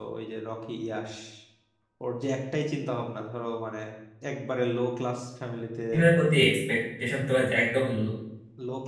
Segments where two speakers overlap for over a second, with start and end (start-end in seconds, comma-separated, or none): none